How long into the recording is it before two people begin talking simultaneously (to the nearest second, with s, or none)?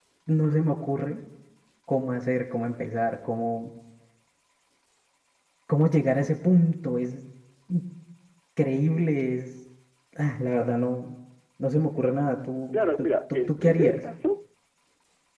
13 s